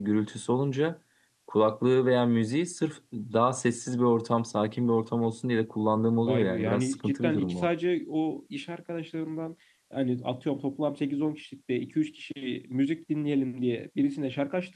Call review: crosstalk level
present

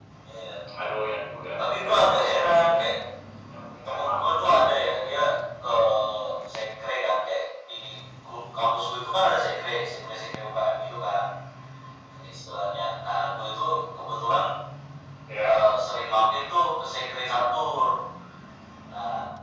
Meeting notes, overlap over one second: present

